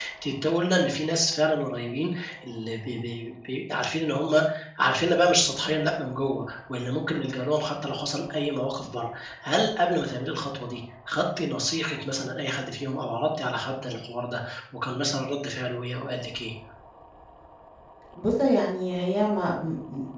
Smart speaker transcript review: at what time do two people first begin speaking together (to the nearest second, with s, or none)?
none